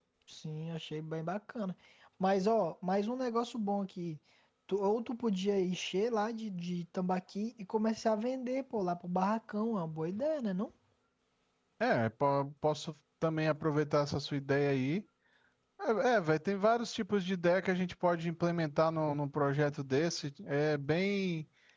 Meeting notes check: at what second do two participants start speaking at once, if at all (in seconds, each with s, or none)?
none